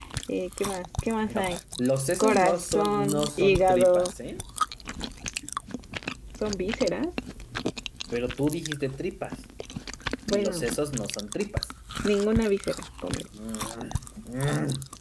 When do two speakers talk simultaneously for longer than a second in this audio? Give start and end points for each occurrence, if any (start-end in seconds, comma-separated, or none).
2.2-4.1